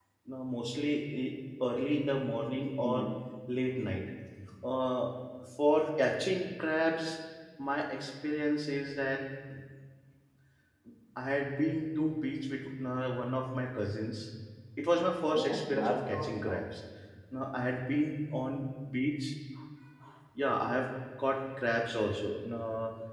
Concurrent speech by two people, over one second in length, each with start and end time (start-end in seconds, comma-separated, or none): 15.3-16.6